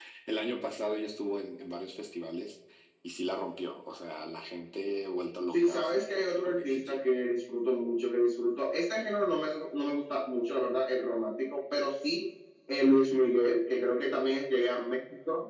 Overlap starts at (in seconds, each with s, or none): 5.5 s